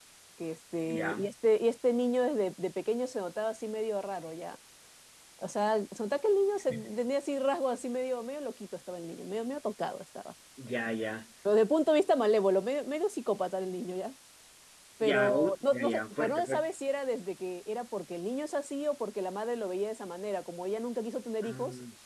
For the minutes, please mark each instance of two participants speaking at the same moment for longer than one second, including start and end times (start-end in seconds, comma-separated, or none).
15.1-16.7